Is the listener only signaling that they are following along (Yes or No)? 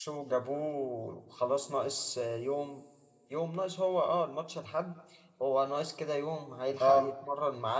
Yes